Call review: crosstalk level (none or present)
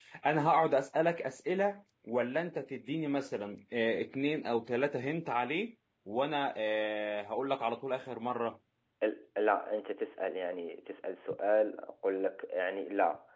none